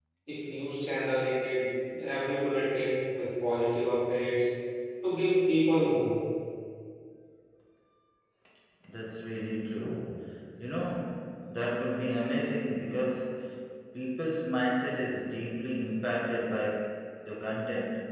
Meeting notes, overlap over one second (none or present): none